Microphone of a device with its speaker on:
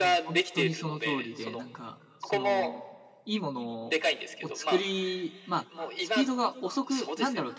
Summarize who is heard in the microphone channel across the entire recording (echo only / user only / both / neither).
both